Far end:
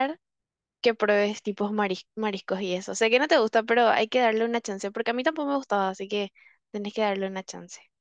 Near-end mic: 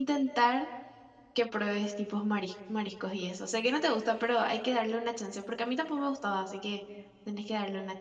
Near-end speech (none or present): none